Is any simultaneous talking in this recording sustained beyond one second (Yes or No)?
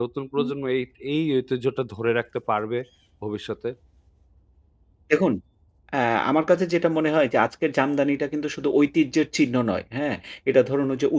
No